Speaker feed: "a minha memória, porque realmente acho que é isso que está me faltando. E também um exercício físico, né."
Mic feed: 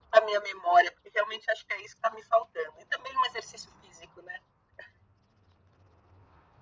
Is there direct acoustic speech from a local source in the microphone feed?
No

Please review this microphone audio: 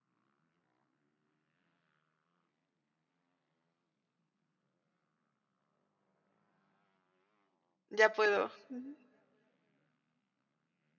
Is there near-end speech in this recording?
Yes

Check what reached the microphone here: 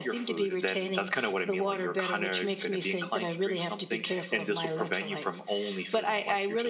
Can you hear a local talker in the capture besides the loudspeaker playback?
No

